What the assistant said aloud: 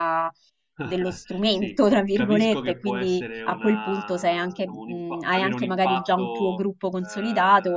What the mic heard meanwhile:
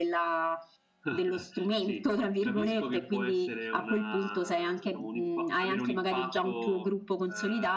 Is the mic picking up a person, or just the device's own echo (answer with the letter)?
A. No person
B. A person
A